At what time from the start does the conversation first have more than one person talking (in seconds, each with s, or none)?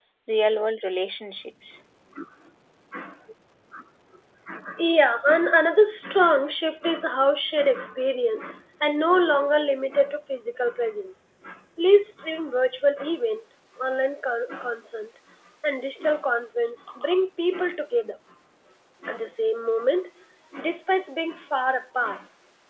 none